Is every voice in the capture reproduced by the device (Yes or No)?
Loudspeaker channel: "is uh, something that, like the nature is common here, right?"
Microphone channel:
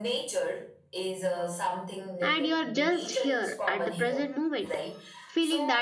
No